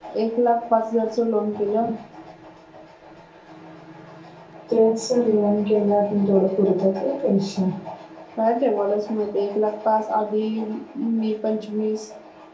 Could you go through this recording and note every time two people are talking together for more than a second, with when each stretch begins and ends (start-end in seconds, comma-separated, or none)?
none